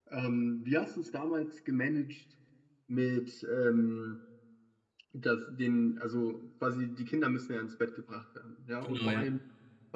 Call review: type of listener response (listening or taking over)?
listening